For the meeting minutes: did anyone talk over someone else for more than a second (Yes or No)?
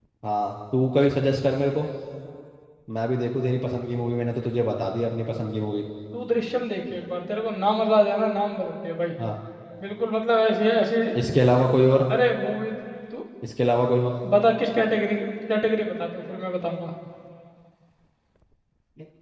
No